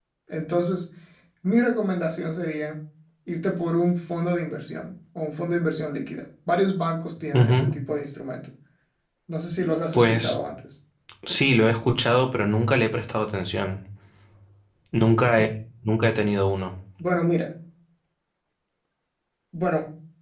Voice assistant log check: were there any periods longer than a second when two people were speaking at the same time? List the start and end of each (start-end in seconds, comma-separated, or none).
none